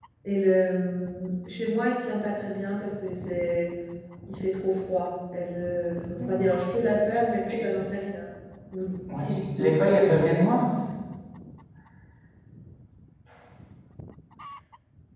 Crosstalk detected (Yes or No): Yes